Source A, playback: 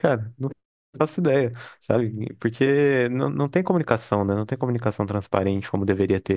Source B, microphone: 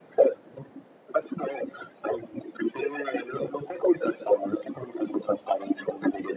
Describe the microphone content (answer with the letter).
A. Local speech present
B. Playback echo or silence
B